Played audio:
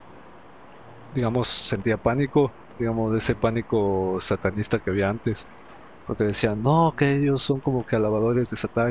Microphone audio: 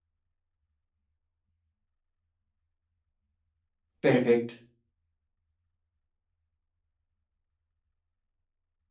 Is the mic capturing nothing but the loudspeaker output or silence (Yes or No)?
No